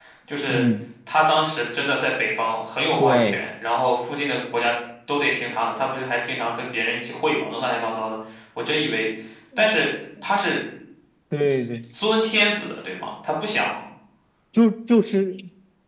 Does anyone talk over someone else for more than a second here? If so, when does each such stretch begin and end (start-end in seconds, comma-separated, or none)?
none